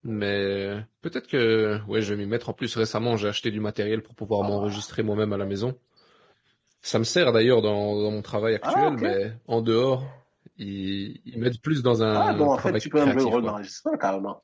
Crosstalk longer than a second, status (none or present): present